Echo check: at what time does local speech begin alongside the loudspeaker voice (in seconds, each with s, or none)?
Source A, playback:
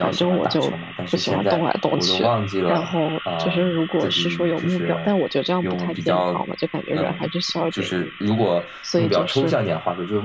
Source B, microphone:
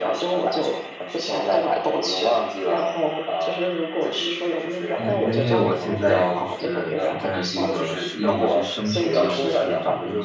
5.0 s